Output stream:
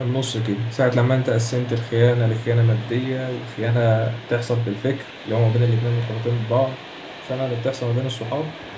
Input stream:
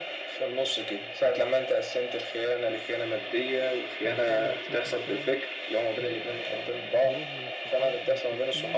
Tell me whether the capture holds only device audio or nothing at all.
No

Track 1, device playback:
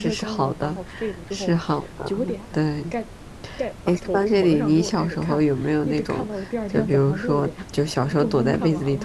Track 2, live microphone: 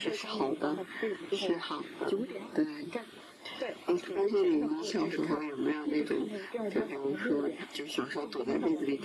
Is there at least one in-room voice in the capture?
No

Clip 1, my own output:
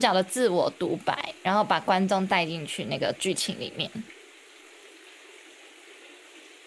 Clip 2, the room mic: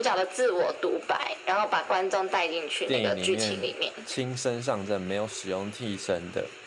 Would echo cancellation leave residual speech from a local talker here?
Yes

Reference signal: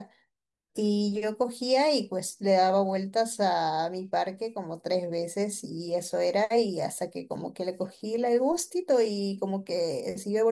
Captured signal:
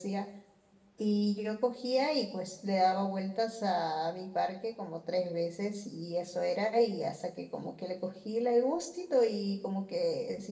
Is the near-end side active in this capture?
No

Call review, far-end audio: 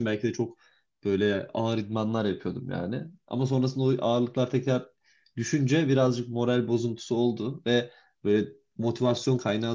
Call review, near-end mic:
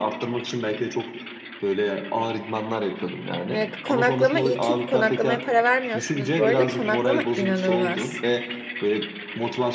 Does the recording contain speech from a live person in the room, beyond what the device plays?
Yes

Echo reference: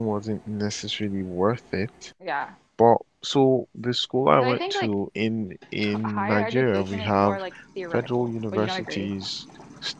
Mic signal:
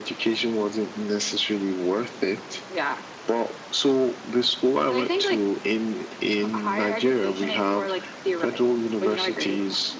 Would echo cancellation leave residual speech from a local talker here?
No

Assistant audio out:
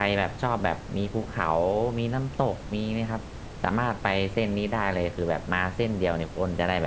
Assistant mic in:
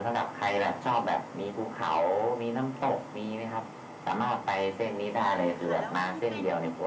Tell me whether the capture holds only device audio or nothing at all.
No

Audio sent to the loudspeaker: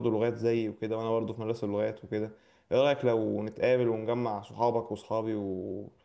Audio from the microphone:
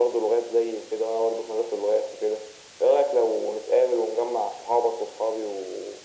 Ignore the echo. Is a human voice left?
No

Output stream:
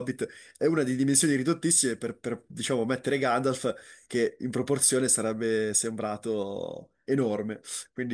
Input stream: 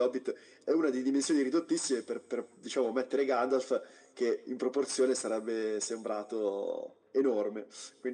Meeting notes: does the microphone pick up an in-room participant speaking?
No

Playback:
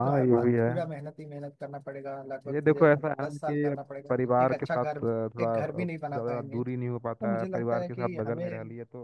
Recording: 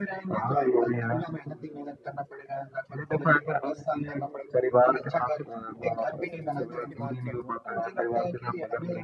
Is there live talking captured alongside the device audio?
Yes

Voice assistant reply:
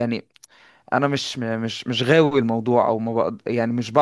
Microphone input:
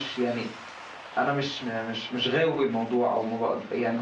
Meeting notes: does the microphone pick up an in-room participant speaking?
No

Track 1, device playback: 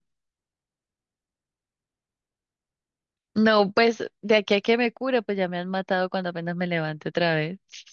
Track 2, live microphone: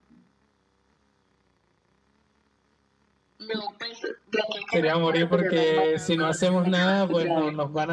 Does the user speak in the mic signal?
Yes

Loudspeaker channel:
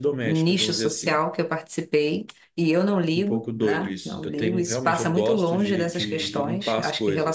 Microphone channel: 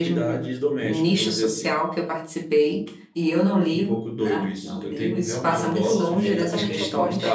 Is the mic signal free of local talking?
No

